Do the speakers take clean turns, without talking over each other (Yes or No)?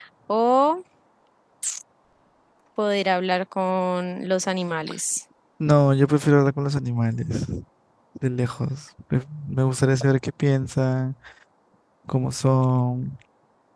Yes